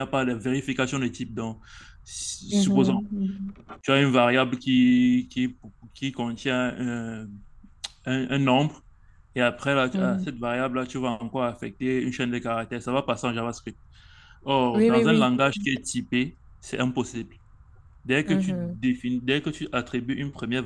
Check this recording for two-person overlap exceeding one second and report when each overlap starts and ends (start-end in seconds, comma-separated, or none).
none